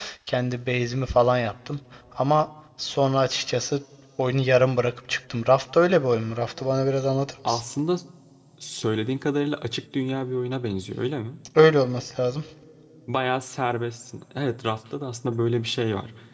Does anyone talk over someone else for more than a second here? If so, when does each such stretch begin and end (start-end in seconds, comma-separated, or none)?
none